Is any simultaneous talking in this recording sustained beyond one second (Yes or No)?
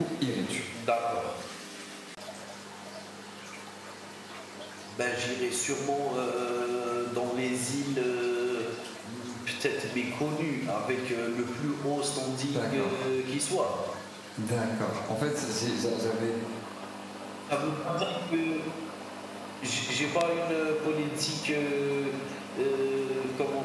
No